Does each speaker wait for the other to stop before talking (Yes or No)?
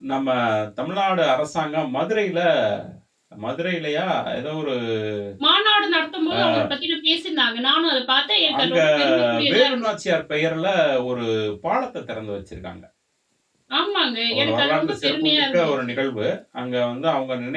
No